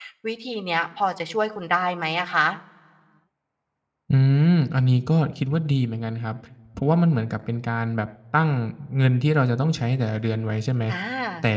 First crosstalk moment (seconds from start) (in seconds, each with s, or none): none